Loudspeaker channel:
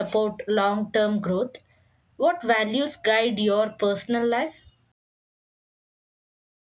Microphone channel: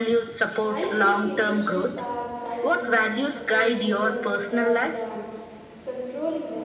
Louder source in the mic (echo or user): echo